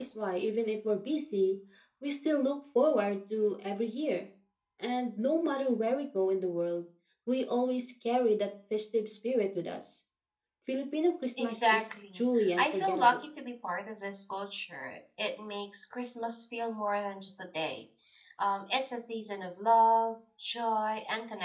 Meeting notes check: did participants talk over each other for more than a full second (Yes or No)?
Yes